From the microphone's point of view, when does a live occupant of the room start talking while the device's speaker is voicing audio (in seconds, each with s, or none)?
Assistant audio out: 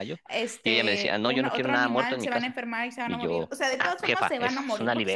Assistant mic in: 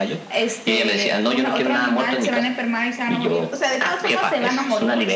none